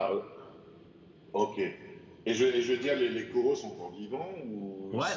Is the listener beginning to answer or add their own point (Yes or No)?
Yes